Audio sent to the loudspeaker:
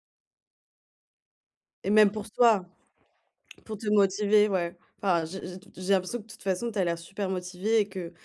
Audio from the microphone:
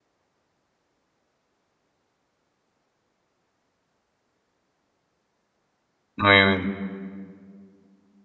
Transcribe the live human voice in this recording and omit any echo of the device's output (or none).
Oui, oui.